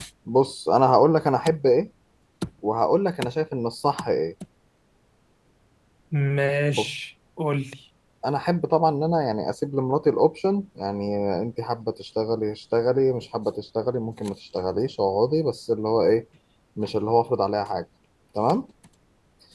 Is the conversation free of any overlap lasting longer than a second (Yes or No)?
Yes